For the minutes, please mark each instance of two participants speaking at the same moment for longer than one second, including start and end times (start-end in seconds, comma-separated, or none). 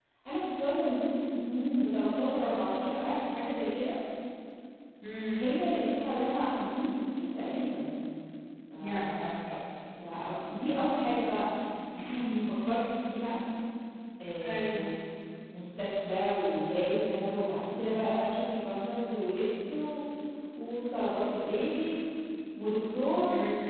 none